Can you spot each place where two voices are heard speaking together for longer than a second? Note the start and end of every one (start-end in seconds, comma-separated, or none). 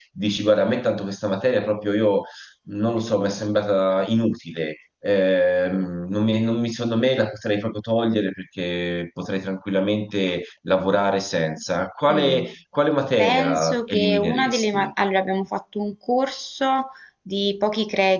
13.2-14.9